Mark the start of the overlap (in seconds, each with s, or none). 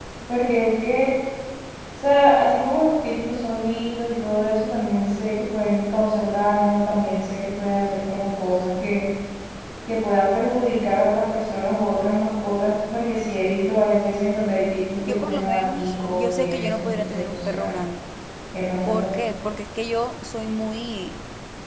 15.1 s